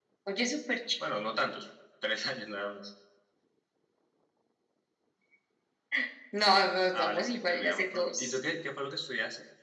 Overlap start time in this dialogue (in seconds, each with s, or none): 6.9 s